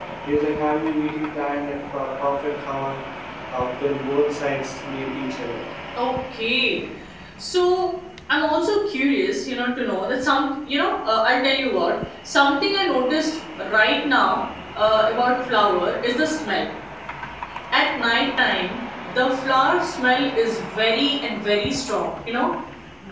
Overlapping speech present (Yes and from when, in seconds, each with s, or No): No